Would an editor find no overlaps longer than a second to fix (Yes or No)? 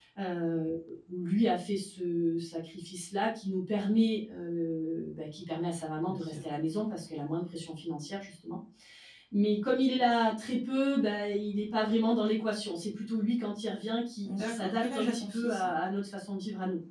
No